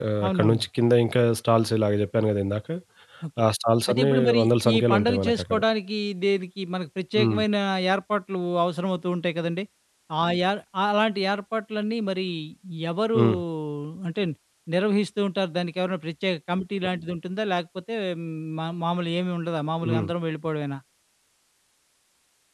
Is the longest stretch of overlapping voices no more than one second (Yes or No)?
No